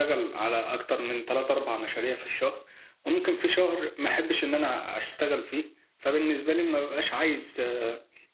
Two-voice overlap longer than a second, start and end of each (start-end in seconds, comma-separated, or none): none